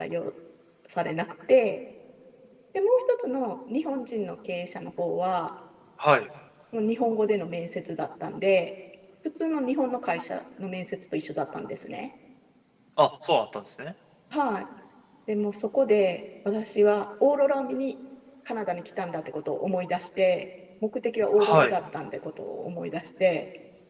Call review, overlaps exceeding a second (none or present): none